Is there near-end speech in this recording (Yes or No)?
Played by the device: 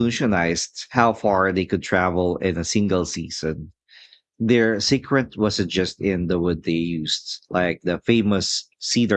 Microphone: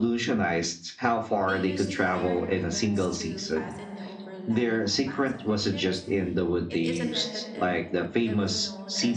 Yes